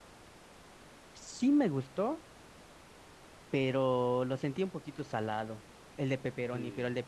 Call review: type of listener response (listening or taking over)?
taking over